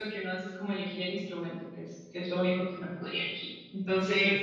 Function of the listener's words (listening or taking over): listening